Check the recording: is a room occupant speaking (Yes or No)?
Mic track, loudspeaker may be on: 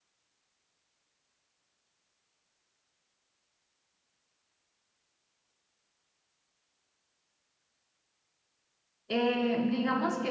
Yes